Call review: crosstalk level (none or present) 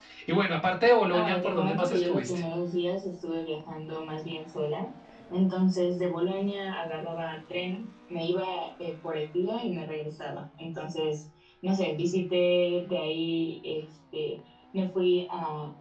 present